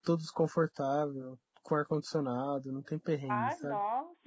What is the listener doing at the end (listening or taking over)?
taking over